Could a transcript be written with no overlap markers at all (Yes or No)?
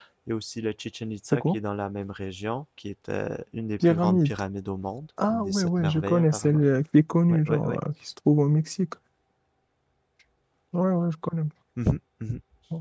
No